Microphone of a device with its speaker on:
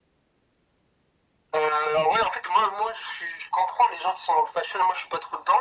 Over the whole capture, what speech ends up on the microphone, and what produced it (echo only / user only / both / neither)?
echo only